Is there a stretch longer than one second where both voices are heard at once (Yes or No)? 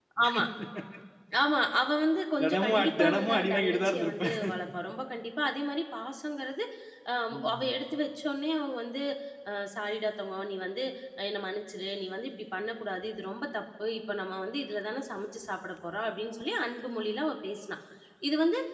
Yes